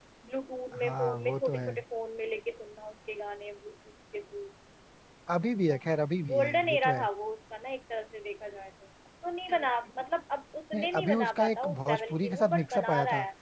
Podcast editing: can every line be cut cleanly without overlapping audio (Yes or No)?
No